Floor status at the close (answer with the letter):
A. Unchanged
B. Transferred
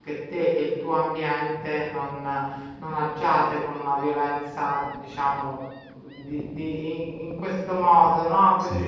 A